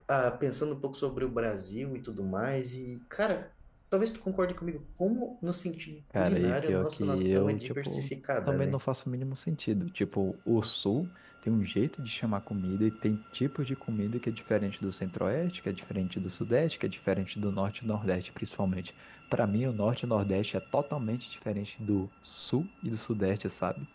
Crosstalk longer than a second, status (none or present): present